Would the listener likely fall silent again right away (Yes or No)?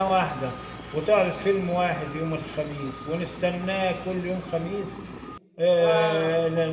Yes